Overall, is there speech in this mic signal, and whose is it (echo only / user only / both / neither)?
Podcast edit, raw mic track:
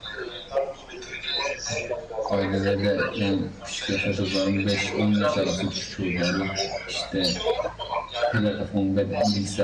both